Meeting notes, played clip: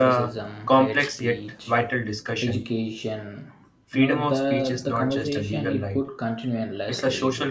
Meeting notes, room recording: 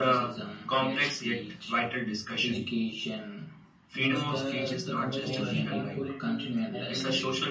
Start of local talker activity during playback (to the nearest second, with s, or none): 4 s